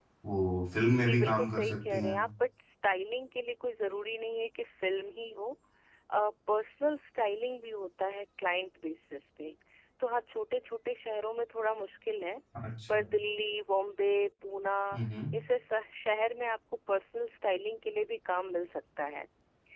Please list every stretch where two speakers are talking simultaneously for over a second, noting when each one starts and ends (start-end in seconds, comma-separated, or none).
0.9-2.2